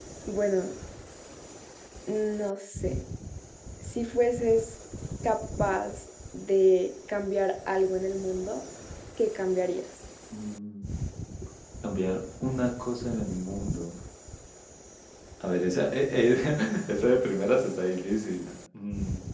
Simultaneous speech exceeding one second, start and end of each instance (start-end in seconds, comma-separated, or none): none